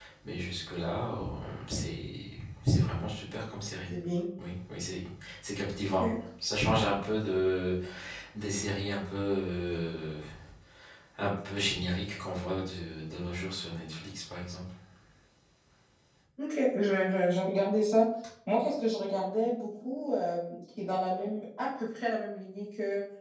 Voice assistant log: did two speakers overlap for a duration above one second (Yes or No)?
No